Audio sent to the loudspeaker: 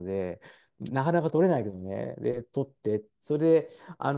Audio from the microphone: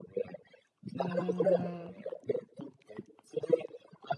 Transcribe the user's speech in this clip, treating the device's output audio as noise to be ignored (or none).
うん